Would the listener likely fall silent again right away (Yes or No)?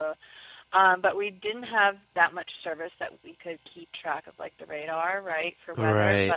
Yes